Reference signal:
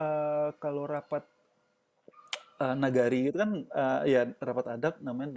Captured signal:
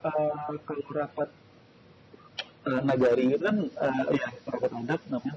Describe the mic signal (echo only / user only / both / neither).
echo only